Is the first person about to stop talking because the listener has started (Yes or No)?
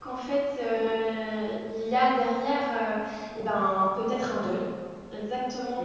No